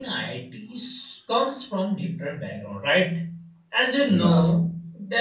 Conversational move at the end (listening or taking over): listening